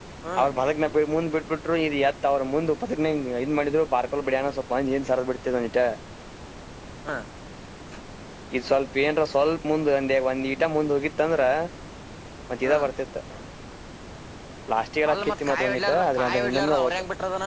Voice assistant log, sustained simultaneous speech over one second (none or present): present